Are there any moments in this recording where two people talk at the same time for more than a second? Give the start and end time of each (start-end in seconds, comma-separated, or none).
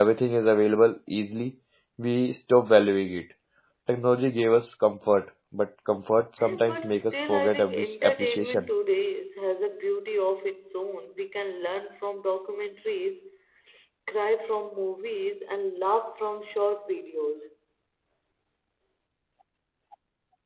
6.4-8.7